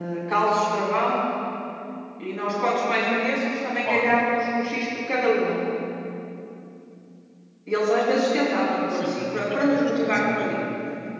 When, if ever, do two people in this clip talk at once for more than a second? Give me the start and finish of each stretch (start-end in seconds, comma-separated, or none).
8.8-10.6